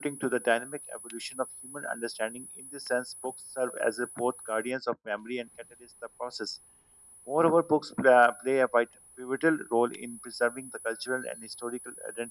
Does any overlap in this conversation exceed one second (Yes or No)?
No